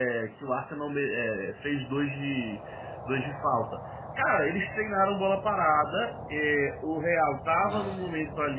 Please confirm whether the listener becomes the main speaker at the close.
No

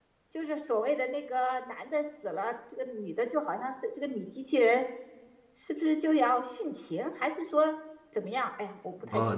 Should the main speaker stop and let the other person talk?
Yes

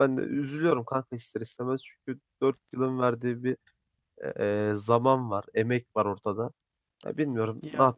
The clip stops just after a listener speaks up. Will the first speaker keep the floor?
Yes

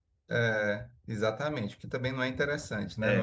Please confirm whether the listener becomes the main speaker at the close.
No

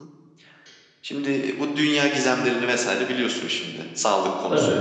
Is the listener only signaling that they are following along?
Yes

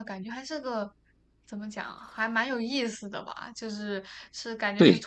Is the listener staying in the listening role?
Yes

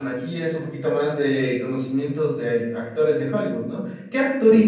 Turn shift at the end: No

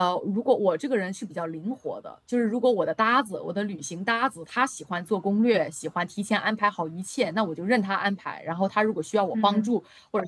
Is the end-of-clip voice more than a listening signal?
No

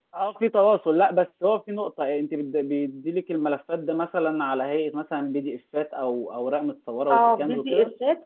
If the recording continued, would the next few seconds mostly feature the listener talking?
Yes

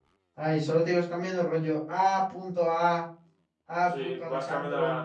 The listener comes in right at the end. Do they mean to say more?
Yes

